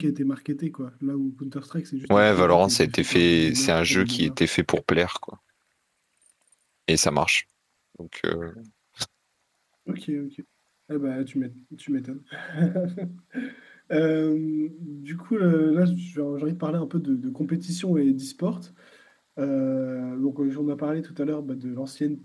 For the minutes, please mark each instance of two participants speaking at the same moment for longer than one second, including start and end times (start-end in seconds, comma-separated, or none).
2.2-4.3